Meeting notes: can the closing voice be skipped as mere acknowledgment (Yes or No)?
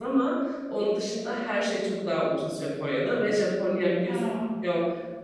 Yes